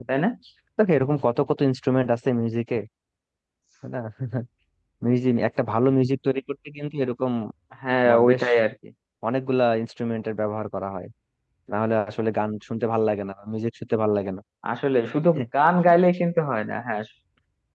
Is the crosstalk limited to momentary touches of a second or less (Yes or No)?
Yes